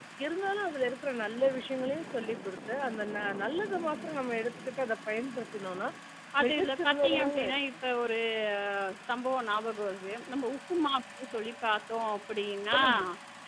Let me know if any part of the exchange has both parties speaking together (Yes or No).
Yes